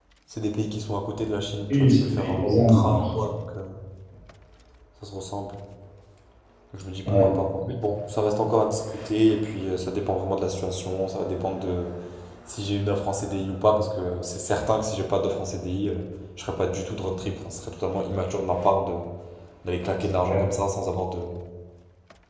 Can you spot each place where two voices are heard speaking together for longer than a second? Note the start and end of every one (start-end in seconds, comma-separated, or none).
1.7-3.1